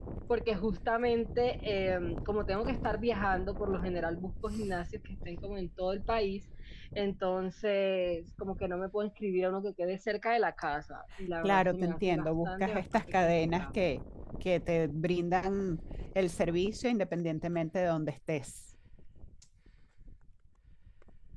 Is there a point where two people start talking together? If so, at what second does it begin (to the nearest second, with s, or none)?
11 s